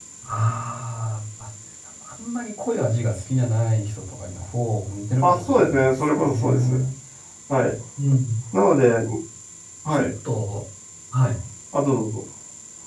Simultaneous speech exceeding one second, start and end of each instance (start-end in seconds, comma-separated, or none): 5.2-6.7